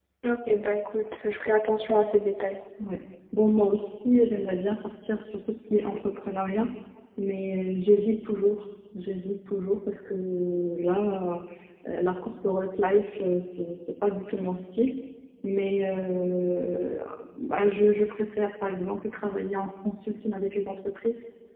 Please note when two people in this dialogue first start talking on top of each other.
none

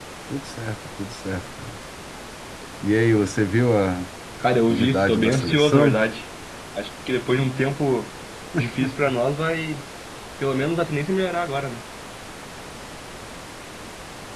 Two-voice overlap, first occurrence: 4.7 s

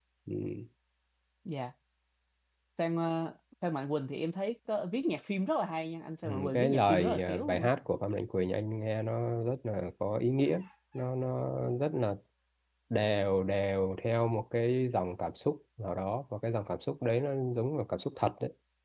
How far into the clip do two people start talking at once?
6.2 s

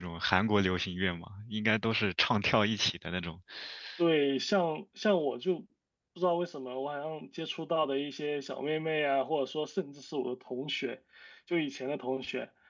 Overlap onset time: none

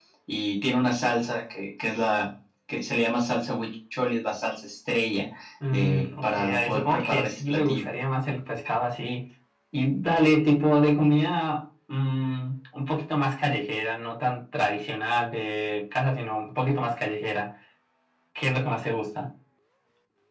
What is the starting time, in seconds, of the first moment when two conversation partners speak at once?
5.6 s

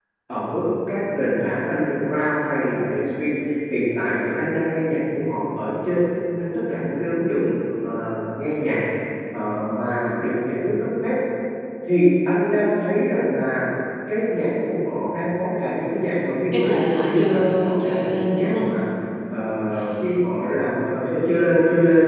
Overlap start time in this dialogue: 16.5 s

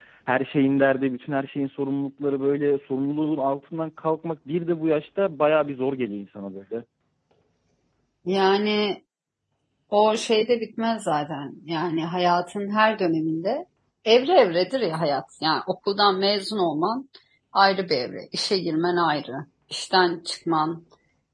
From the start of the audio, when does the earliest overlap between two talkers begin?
none

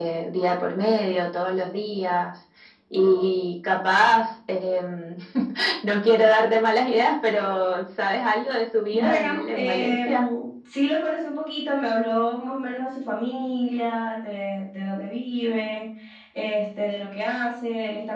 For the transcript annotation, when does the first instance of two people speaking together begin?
8.9 s

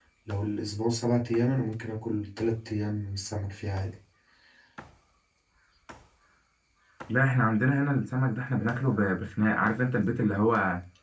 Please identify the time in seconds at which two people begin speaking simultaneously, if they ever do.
none

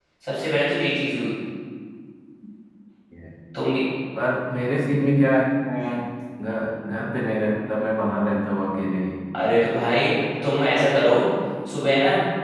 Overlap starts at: none

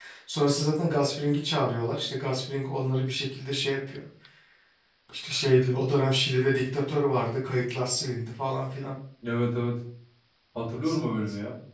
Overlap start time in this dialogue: none

